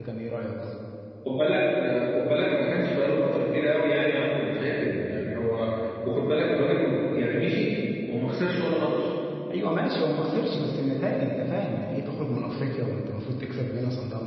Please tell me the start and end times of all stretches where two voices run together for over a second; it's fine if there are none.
none

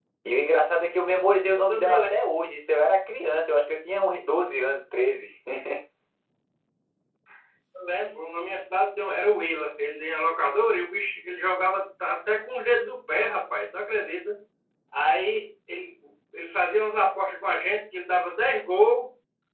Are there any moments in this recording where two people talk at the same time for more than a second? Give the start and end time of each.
none

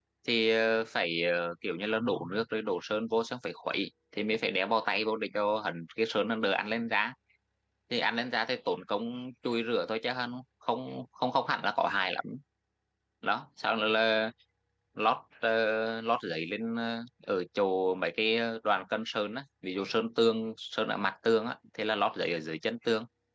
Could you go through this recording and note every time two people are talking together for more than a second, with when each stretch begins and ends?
none

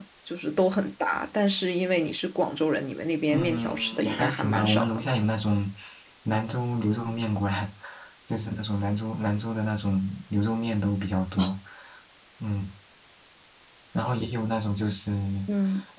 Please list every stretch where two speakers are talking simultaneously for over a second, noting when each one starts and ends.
3.3-5.0

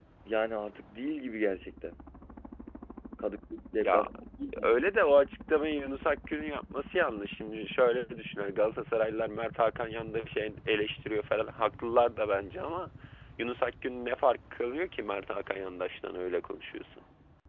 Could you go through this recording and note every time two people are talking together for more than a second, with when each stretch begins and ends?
none

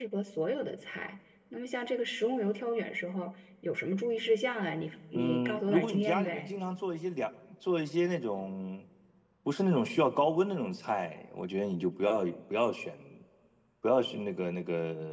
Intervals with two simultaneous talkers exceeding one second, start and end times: 5.1-6.5

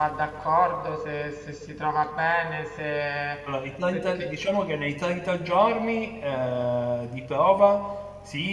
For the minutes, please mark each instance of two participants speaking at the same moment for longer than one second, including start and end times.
none

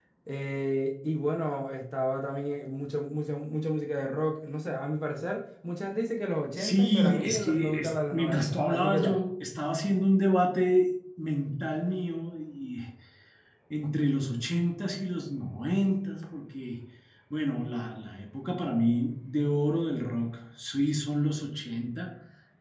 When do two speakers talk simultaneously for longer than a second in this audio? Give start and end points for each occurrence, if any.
6.6-9.2

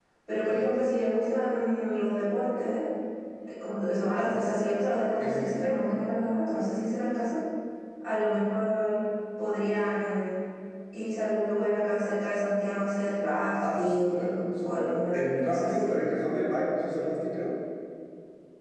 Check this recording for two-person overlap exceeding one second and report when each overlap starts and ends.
13.6-16.0

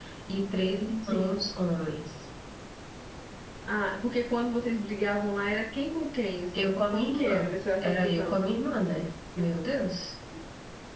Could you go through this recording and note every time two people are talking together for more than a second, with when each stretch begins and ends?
6.5-8.4

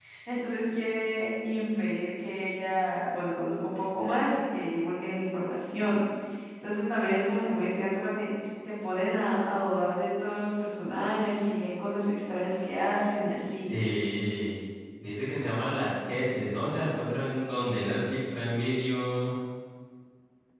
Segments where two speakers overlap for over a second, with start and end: none

